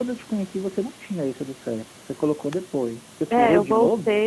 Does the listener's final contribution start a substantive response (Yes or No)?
Yes